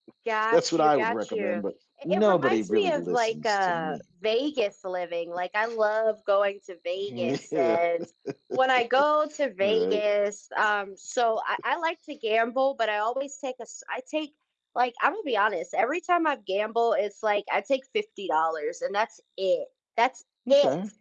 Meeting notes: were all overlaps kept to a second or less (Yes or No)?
No